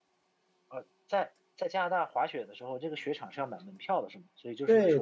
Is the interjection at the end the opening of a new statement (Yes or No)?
Yes